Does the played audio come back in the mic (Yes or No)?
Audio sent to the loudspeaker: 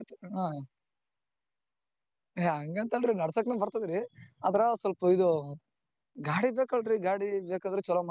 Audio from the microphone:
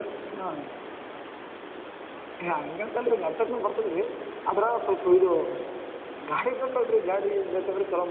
Yes